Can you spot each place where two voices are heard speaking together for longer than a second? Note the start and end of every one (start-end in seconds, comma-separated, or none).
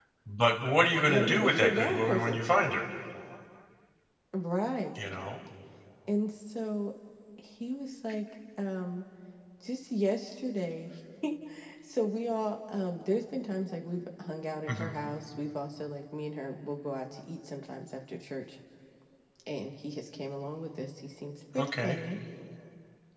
1.1-2.4